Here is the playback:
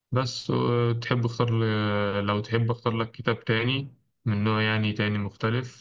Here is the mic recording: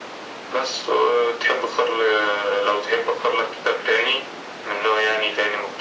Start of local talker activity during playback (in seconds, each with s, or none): none